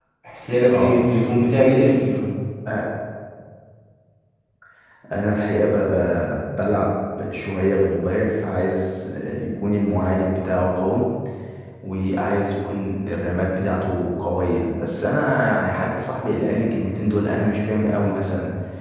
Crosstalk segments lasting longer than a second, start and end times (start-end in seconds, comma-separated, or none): none